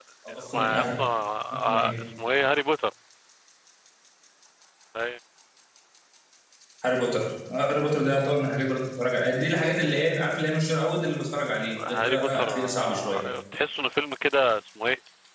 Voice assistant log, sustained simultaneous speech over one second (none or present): present